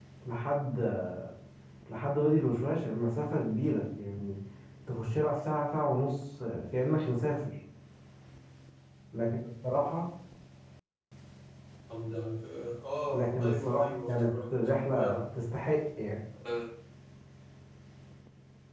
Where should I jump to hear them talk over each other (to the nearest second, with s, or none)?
13 s